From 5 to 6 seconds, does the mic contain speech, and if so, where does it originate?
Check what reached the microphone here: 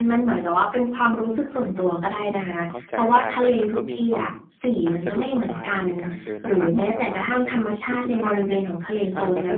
both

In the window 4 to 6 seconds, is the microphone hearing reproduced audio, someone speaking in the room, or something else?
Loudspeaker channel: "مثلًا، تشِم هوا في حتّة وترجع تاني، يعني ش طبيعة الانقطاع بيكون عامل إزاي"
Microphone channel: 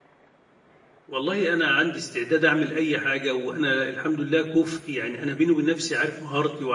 user only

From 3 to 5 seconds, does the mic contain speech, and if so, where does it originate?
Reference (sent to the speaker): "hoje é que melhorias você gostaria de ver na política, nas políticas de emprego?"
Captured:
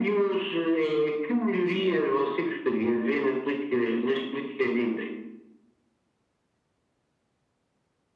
echo only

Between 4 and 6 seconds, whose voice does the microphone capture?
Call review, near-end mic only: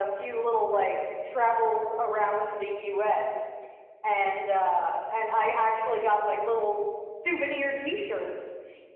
echo only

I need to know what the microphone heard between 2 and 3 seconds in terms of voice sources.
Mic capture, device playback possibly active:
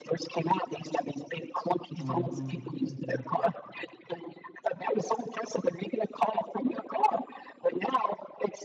both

